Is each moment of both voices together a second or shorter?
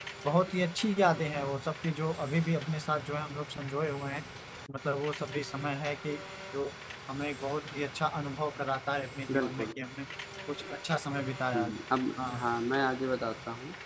Yes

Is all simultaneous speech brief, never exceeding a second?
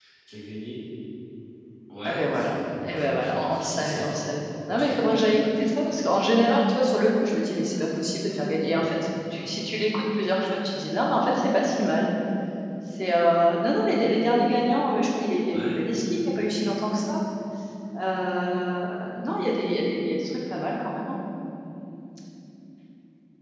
No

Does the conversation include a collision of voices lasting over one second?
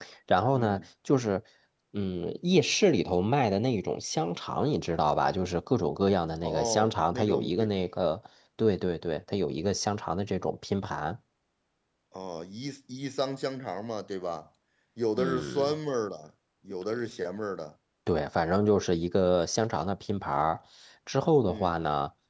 Yes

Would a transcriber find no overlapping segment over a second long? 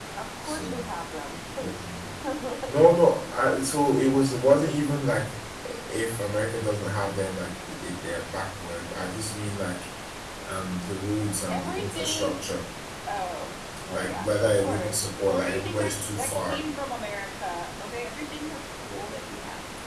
No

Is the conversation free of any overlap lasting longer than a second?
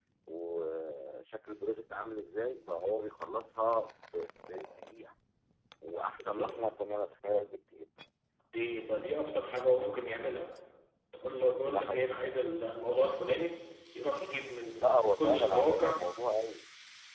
No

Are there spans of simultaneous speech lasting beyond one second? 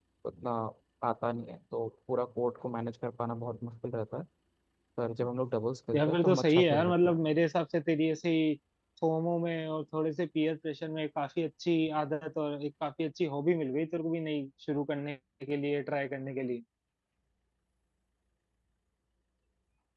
Yes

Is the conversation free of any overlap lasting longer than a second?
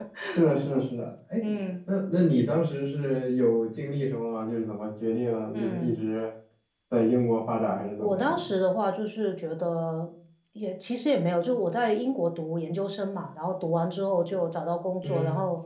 Yes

